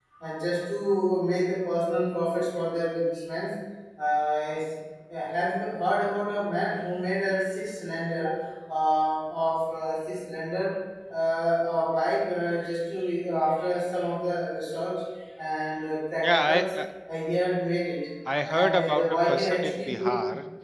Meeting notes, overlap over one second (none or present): present